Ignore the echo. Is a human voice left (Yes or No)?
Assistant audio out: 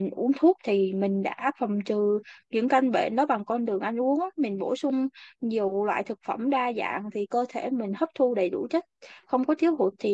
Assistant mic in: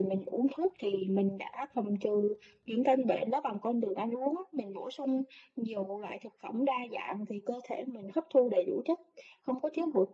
No